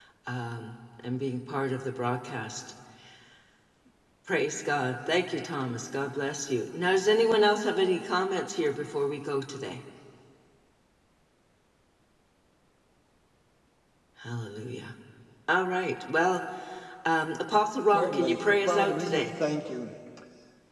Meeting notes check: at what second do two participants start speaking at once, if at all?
18 s

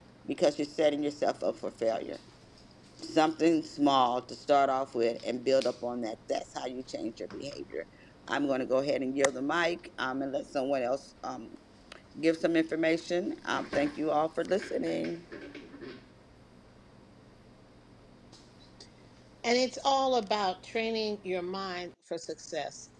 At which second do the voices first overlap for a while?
none

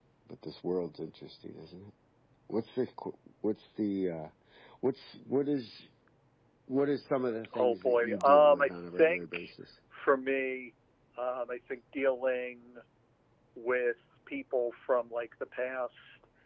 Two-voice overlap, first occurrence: 8 s

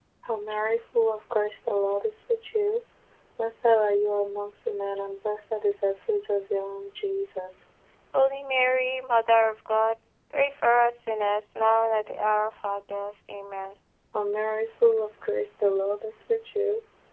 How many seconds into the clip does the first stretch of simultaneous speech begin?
none

